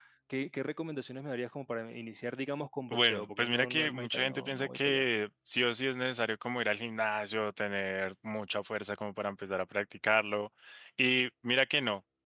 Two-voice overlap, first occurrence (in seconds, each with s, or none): 2.9 s